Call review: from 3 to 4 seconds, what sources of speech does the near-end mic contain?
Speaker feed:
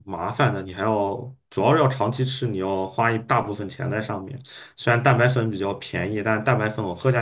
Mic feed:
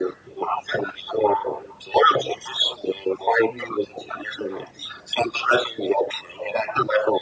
both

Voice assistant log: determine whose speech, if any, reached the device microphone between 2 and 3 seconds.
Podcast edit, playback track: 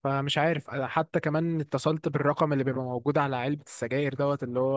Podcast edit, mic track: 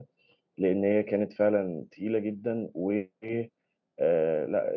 user only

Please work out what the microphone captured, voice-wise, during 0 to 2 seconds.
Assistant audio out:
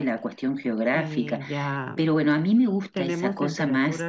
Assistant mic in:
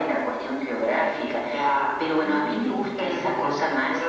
echo only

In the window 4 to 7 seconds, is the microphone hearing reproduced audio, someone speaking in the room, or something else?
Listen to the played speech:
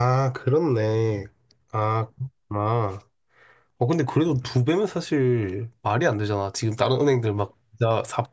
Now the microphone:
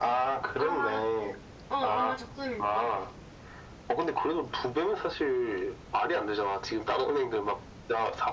echo only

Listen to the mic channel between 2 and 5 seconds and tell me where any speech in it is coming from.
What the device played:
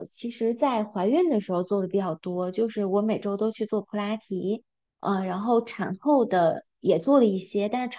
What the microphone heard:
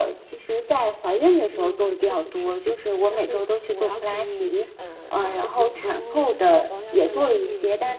both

